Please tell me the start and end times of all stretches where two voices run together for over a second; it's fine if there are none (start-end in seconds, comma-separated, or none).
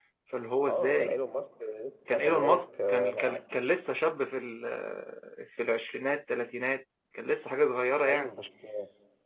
2.1-3.4